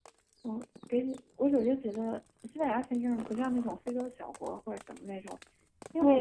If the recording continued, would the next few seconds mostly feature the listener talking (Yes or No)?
Yes